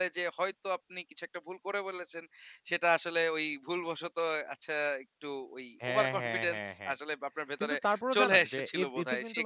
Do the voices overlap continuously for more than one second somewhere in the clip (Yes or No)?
Yes